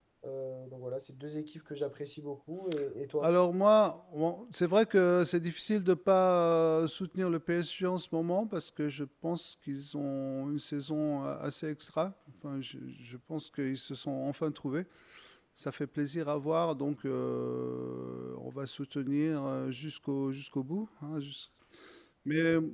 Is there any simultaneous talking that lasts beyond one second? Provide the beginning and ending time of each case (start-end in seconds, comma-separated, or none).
none